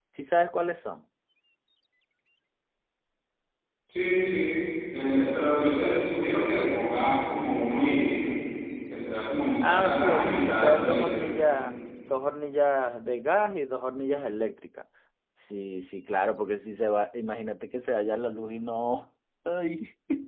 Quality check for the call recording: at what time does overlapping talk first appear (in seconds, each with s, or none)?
9.6 s